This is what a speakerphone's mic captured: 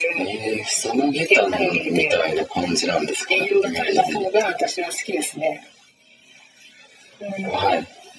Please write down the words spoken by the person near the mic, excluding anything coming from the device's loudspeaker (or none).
none